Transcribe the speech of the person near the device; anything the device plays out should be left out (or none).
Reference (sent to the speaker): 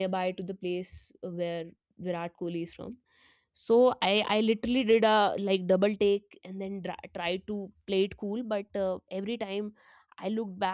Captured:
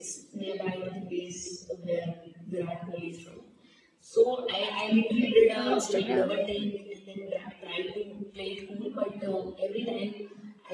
in, on instagram